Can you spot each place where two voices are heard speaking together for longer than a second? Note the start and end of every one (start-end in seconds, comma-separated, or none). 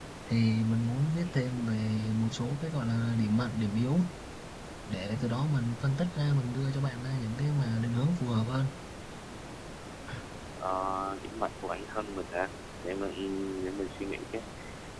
none